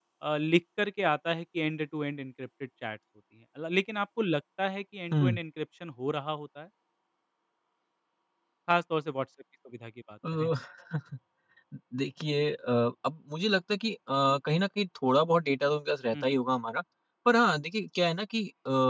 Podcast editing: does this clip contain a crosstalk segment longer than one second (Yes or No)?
No